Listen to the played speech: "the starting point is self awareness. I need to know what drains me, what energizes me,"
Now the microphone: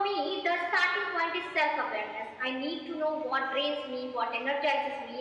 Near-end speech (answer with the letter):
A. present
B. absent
B